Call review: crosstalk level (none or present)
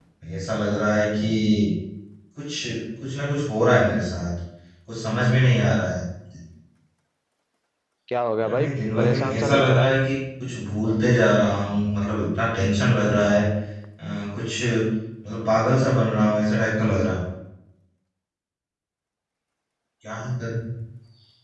present